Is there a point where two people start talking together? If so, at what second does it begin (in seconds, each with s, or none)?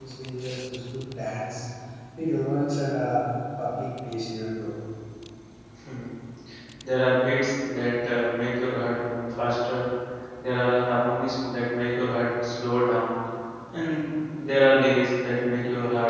none